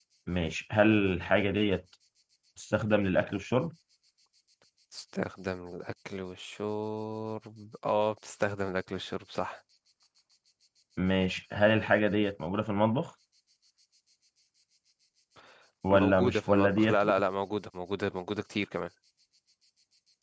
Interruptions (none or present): present